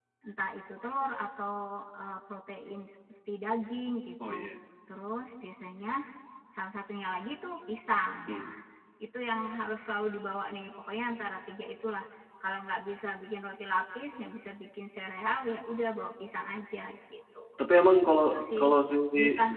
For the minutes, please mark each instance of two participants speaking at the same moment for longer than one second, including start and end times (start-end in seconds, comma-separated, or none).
none